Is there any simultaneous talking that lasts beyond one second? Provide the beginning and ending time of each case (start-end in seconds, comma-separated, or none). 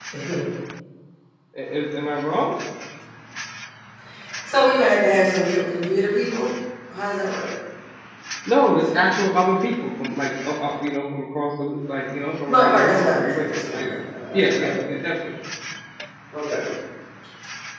12.5-13.9